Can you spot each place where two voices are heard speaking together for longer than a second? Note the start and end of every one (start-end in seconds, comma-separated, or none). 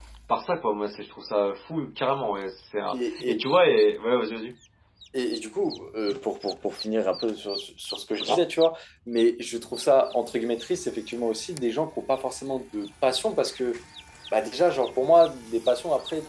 none